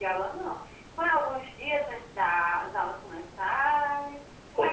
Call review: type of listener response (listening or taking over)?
taking over